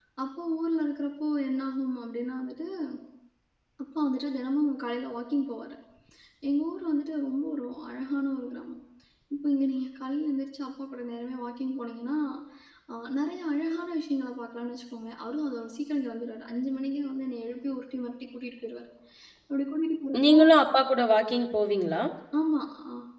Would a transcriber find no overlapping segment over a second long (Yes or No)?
Yes